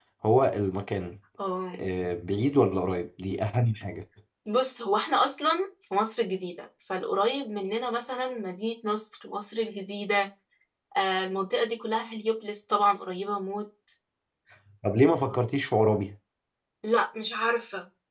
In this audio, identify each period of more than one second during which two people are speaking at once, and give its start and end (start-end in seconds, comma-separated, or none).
none